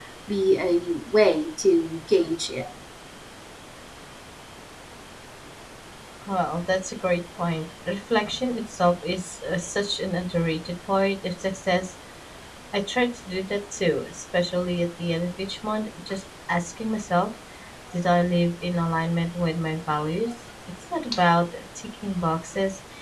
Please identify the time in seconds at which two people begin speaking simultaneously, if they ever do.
none

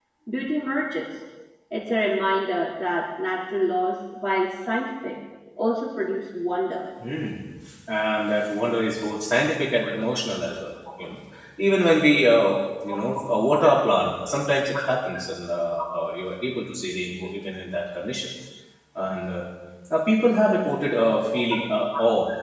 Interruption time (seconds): none

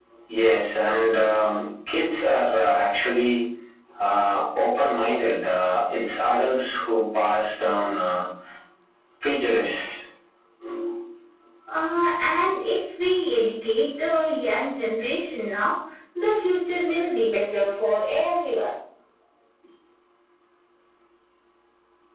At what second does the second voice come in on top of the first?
none

